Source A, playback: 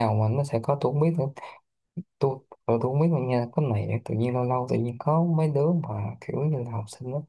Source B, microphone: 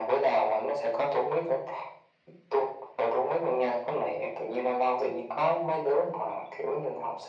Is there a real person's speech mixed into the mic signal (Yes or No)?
No